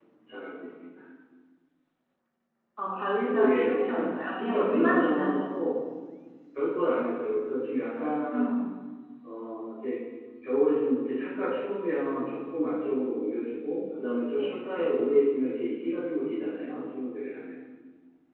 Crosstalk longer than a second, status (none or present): present